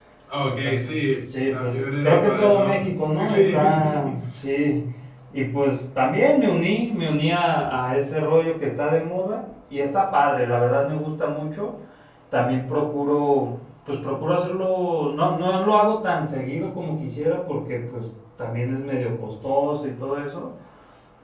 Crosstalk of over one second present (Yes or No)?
Yes